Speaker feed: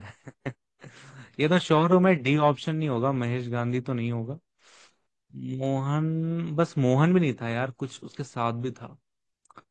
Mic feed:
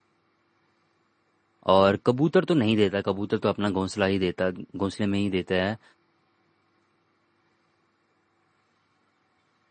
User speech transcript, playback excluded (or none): और कबूतर तो नहीं देता कबूतर तो अपना घोंसला ही देता घोंसले में ही देता है